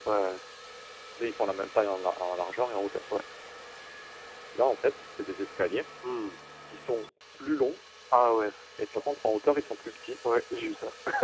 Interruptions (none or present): none